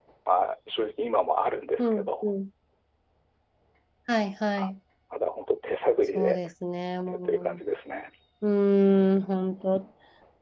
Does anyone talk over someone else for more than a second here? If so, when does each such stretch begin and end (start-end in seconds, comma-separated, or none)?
none